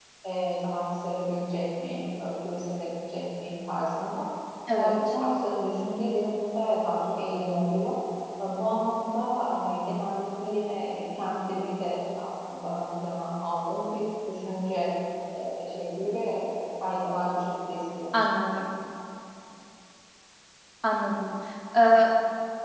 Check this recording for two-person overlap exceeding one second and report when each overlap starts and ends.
none

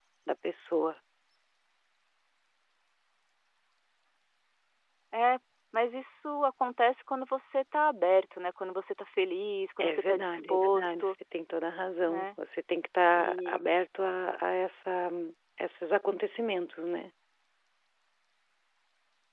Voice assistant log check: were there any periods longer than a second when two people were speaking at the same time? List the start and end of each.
9.8-11.1

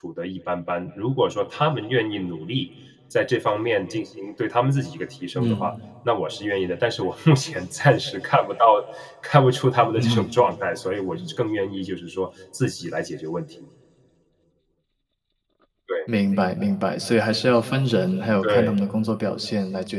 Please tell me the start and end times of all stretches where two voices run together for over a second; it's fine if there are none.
none

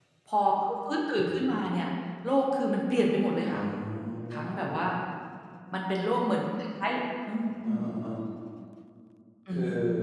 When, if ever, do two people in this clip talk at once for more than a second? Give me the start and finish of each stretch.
none

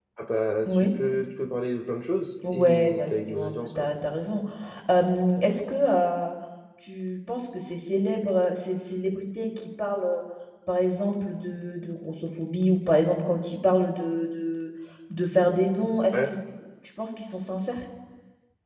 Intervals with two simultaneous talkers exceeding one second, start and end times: 2.5-3.9

